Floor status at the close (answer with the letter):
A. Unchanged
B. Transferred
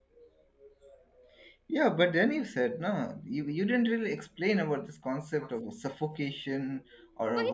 B